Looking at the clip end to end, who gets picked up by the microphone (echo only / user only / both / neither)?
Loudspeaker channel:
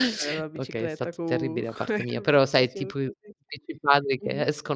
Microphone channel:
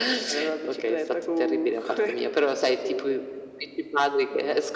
echo only